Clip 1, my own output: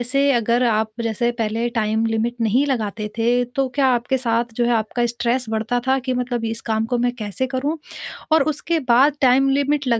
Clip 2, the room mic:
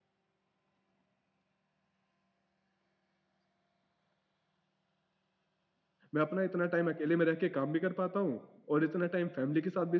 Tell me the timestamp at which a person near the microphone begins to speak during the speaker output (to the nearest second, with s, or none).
6 s